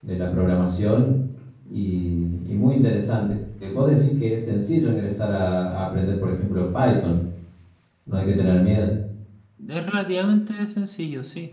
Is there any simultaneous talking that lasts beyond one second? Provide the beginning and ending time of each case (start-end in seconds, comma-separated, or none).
none